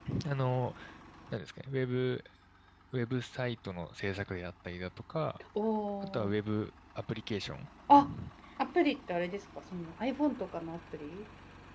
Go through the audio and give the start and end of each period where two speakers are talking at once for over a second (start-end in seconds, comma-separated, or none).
none